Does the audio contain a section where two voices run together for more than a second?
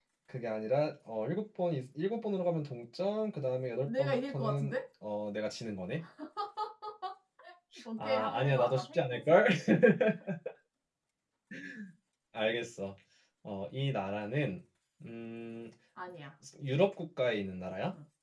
Yes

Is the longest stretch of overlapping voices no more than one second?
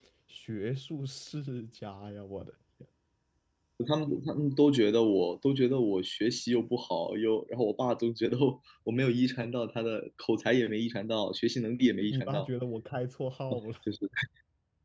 Yes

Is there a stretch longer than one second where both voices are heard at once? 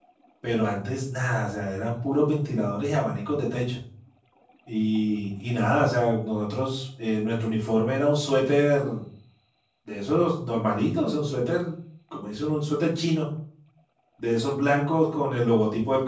No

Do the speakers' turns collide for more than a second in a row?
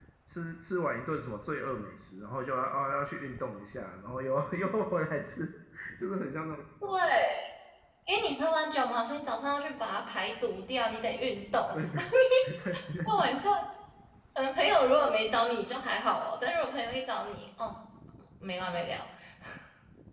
No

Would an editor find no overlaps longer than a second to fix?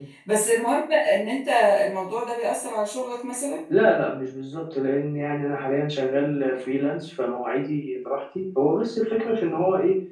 Yes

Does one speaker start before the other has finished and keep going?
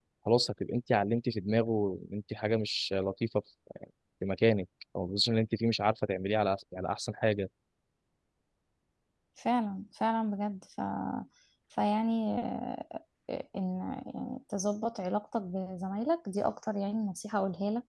No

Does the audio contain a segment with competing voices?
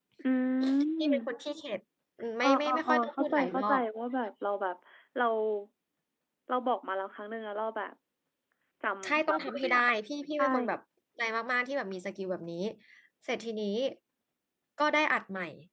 Yes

